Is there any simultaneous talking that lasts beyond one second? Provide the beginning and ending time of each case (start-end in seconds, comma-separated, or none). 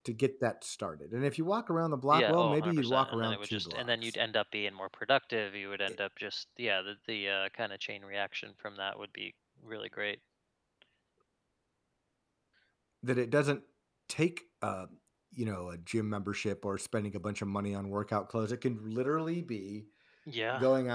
2.1-4.1